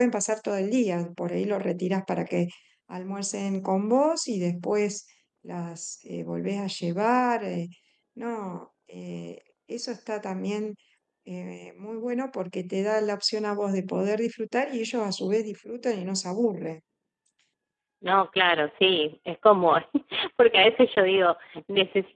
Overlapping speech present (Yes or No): No